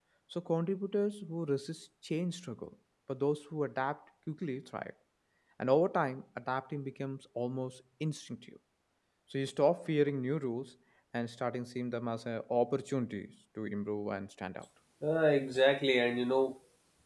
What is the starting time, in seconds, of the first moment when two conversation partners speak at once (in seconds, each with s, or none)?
none